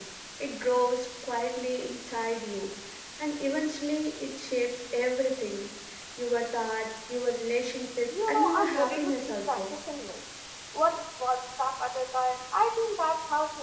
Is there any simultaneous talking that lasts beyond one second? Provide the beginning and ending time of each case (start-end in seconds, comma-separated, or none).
8.2-9.7